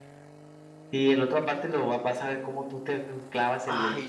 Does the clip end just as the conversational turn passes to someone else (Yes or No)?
Yes